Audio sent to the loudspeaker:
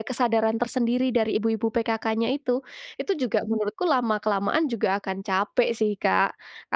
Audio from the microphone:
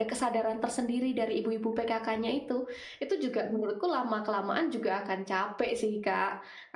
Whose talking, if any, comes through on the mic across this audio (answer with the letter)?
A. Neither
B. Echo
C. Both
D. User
B